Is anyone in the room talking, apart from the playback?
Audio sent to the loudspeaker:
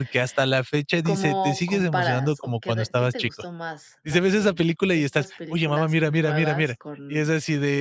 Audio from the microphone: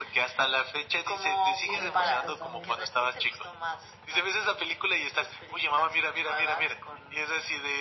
Yes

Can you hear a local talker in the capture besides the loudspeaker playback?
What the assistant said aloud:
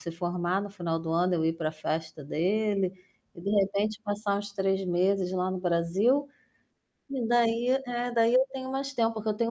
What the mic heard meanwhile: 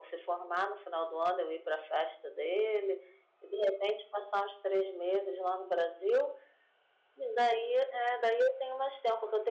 No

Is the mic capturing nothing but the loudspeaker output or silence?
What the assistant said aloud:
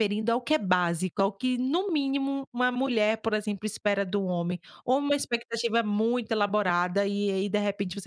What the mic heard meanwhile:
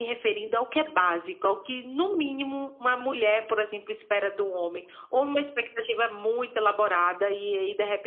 Yes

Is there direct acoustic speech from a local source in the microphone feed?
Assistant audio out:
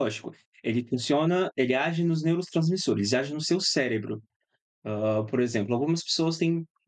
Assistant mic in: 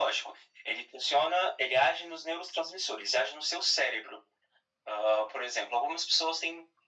No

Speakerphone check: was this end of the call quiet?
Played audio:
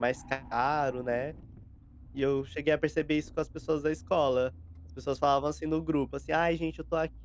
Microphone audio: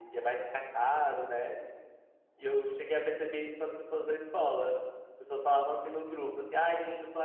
Yes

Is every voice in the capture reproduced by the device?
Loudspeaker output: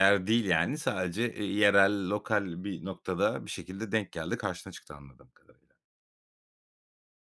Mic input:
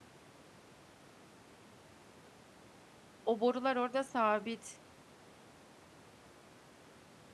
No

